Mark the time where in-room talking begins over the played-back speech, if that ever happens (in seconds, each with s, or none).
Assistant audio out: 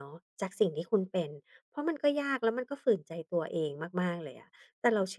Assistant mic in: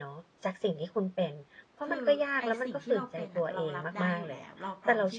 1.9 s